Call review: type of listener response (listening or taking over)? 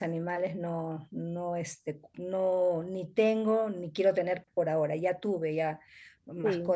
listening